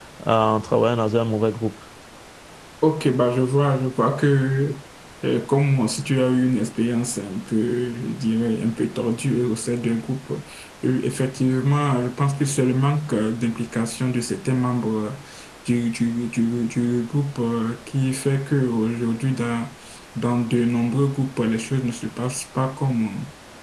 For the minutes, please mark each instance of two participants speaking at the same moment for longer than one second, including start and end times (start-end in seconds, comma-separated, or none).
none